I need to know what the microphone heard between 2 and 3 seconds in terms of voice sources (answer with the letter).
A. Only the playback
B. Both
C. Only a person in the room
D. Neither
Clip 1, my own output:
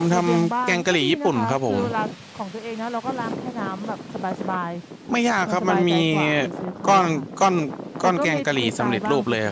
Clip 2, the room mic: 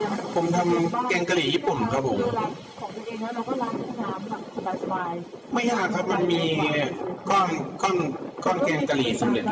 A